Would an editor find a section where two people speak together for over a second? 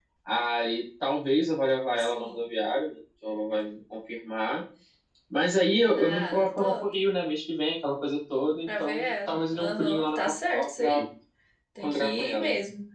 Yes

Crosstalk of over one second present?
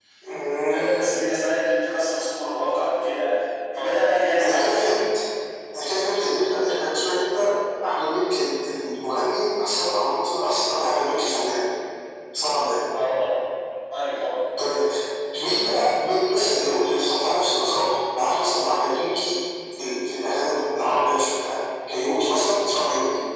No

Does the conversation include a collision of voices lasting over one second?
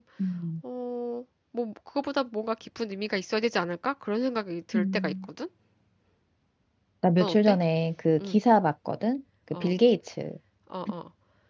No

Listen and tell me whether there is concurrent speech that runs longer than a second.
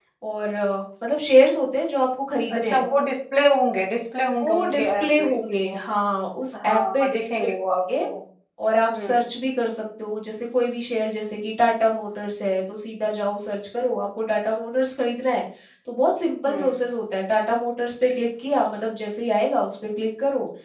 Yes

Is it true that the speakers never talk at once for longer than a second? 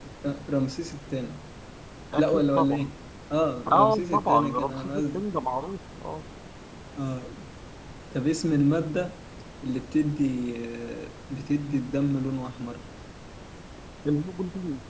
No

